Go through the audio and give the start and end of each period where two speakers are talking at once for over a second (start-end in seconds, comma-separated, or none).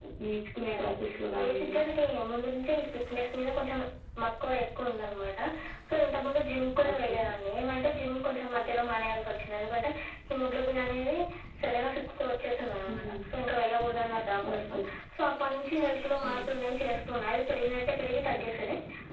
none